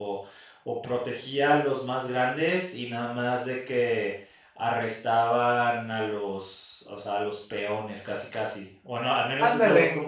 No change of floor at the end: Yes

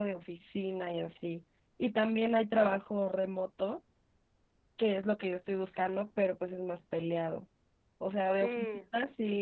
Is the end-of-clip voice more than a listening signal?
No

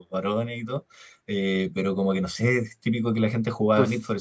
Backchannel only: Yes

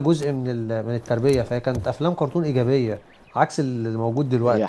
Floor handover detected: Yes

